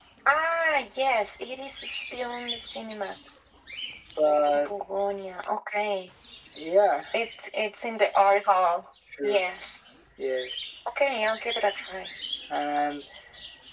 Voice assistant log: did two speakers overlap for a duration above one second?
No

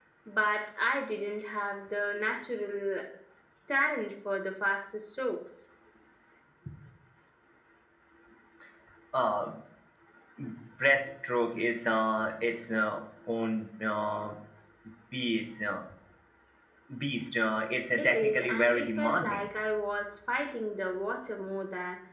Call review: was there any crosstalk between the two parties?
Yes, from 17.9 s

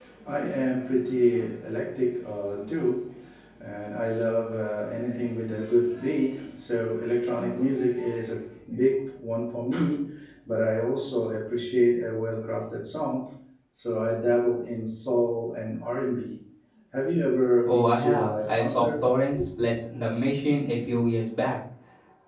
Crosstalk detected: Yes, from 17.7 s

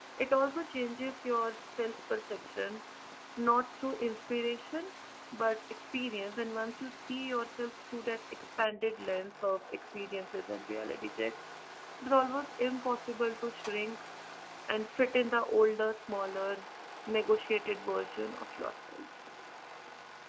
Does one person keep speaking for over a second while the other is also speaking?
No

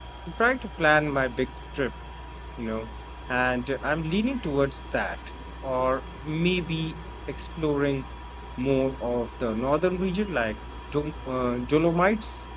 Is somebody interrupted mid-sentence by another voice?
No

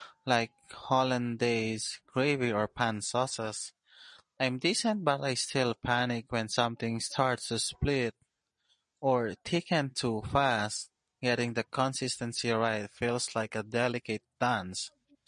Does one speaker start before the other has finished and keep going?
No

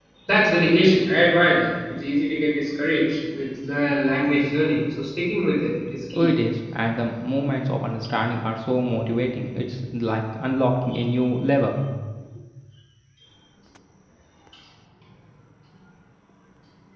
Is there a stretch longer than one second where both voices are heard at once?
No

